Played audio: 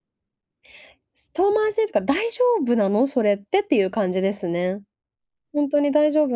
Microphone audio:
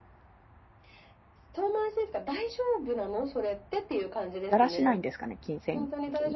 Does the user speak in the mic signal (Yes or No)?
Yes